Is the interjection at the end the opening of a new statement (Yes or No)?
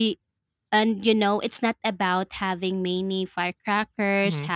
No